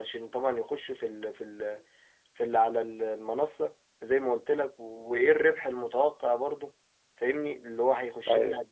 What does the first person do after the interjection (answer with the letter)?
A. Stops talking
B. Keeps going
B